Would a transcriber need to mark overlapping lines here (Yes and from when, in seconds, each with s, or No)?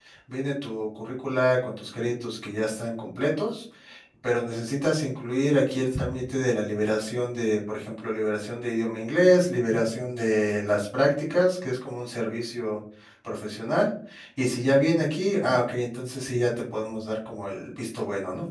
No